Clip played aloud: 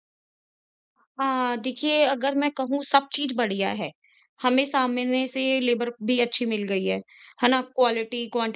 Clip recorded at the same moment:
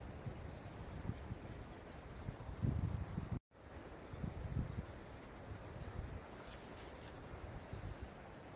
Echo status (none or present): none